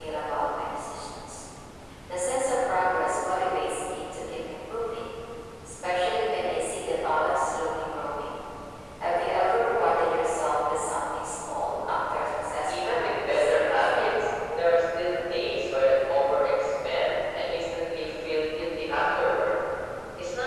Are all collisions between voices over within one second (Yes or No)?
No